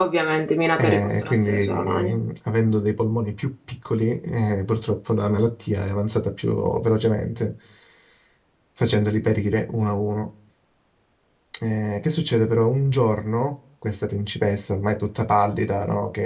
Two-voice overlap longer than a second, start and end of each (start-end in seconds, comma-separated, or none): 0.8-2.2